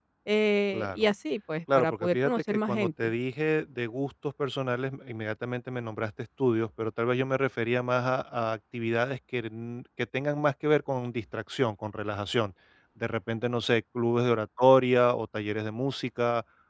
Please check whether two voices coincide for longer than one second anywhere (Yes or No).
Yes